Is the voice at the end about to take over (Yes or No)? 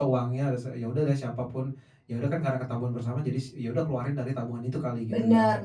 Yes